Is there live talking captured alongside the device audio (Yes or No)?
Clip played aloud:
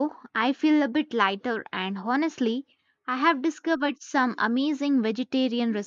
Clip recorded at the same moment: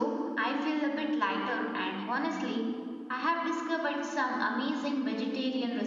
No